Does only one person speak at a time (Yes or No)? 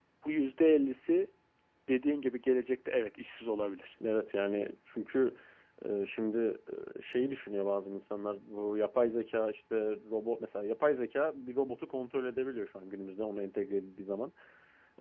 Yes